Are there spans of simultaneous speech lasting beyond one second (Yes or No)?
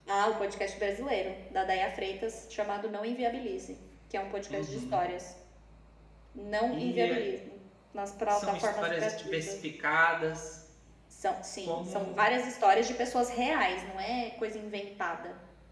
Yes